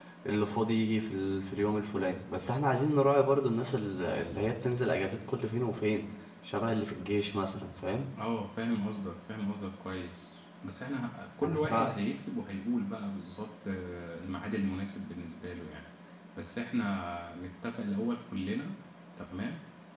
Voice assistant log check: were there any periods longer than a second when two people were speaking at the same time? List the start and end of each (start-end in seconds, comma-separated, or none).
none